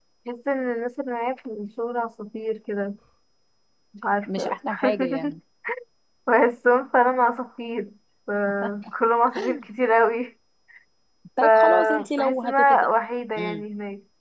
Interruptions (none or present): present